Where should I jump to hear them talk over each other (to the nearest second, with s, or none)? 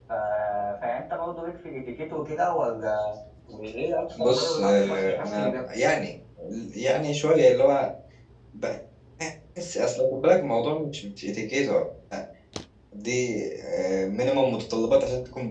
4 s